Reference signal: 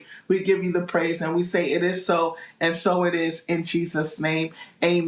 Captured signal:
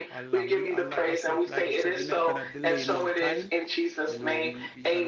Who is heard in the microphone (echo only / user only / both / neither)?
both